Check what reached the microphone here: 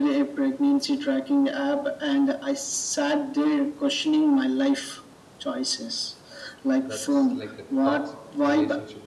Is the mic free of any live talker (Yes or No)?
No